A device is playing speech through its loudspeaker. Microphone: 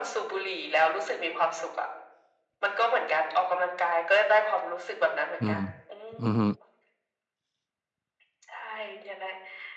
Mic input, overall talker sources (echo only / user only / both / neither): both